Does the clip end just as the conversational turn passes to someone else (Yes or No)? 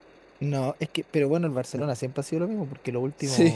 No